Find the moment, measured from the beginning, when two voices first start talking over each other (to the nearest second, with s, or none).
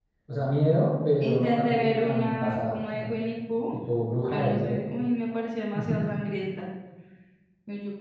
1 s